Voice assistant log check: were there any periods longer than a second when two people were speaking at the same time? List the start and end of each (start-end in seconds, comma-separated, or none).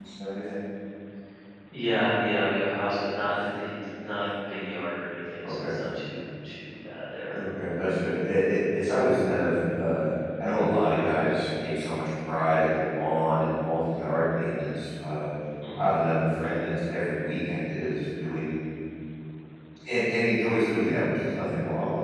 none